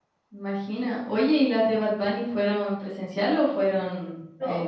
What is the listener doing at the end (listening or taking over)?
taking over